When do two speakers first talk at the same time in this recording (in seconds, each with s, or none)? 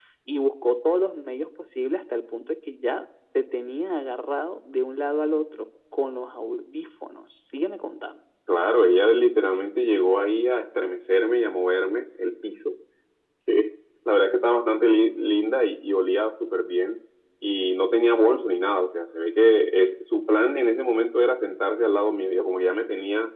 none